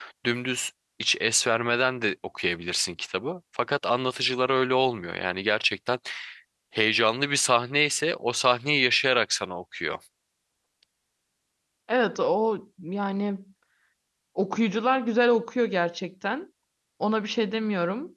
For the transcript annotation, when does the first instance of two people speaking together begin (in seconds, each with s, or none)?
none